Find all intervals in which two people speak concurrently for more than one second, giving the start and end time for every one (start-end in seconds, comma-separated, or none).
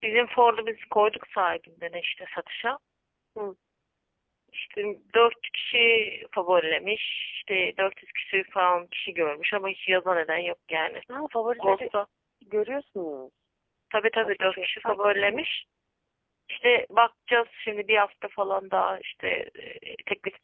14.2-15.6